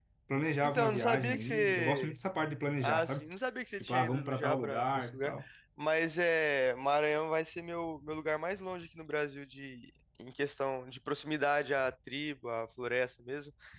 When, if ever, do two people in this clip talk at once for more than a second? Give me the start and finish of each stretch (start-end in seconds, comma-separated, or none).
0.6-2.1, 3.8-5.3